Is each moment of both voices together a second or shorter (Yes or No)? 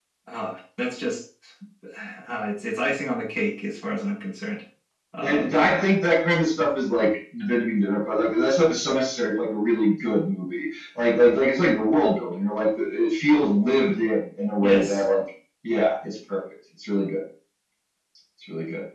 Yes